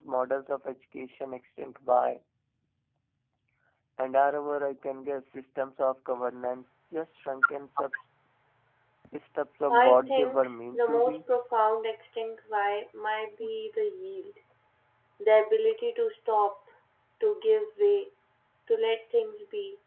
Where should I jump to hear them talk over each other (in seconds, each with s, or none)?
9.7 s